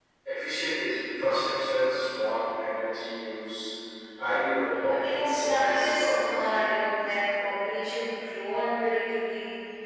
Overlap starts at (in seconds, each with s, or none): 4.9 s